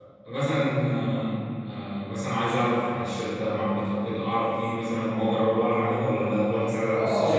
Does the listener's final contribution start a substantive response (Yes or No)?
Yes